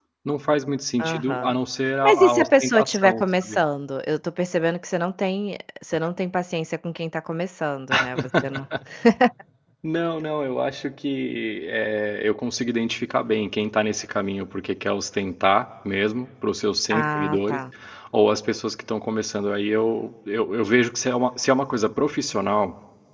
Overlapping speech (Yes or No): Yes